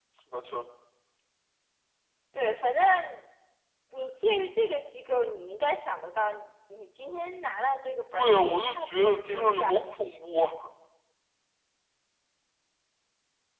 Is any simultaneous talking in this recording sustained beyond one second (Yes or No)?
Yes